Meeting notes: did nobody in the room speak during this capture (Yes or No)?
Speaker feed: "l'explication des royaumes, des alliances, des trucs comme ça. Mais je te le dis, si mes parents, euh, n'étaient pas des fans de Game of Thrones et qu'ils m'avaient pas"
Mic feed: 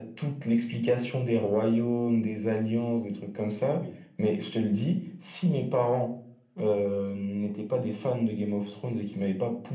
No